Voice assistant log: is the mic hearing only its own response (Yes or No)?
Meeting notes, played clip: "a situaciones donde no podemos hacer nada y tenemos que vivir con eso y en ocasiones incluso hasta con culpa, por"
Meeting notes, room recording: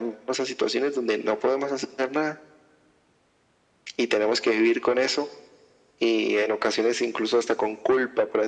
Yes